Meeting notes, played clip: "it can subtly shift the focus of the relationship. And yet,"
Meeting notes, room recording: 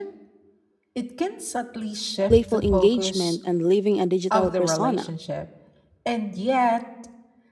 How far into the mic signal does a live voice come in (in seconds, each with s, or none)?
2.3 s